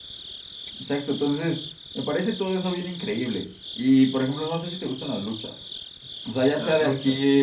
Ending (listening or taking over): listening